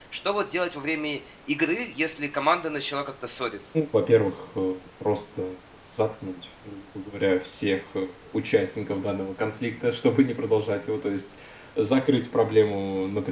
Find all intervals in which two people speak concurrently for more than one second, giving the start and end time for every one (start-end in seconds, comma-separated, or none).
none